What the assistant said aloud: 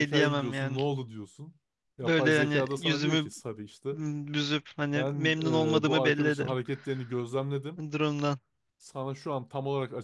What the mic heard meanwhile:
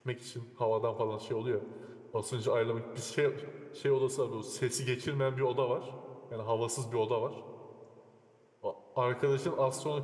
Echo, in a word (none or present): none